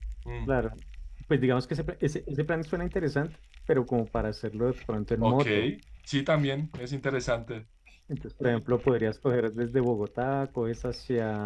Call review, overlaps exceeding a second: none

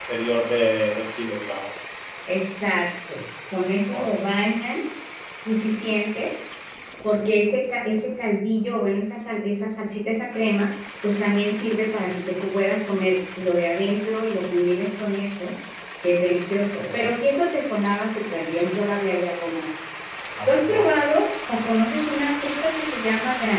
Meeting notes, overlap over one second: none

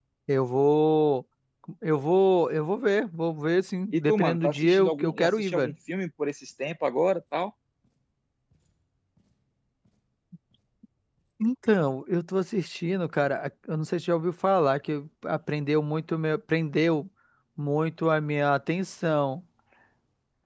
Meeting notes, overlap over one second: present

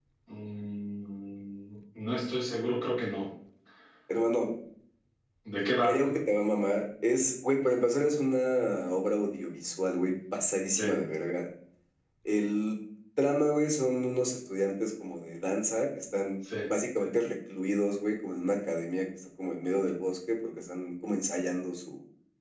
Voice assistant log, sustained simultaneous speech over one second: none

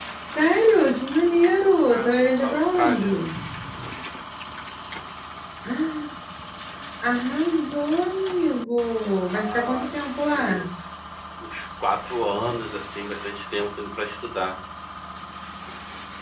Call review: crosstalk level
present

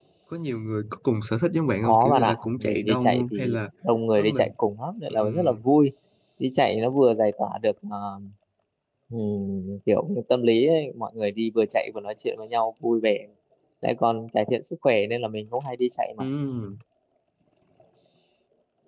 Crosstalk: present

